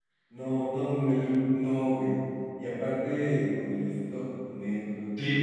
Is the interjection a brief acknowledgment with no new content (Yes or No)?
No